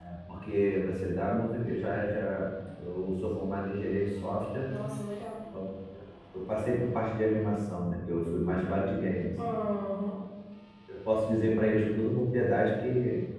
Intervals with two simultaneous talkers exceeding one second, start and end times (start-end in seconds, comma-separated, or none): none